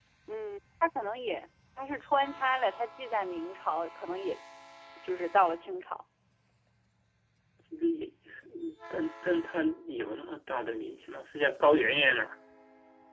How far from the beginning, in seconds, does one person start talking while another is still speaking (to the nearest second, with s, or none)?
none